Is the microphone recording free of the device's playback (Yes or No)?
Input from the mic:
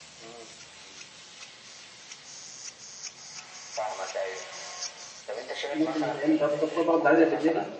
No